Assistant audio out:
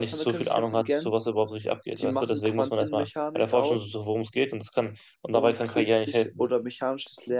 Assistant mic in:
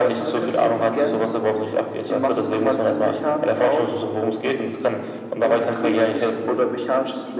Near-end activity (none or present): none